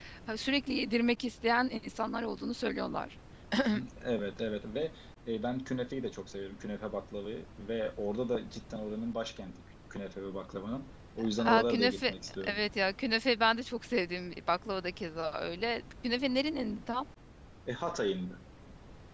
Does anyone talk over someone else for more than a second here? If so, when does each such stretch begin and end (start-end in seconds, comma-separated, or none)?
11.4-12.6